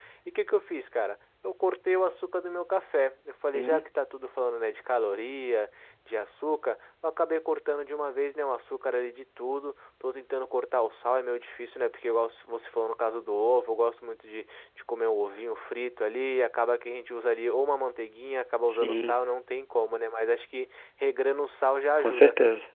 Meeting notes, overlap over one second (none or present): none